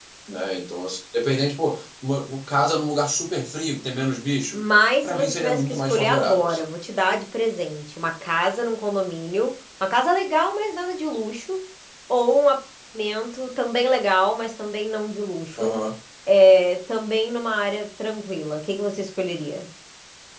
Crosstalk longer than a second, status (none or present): present